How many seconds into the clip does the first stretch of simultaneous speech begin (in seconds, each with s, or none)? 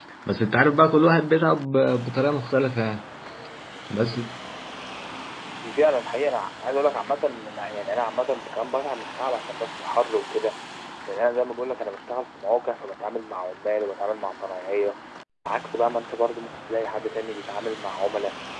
none